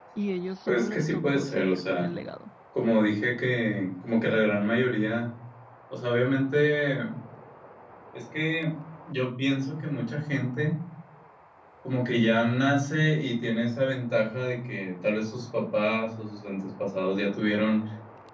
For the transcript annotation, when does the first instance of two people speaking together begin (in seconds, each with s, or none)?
0.7 s